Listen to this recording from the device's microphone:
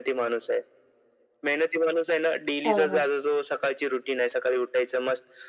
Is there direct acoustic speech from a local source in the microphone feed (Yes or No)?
Yes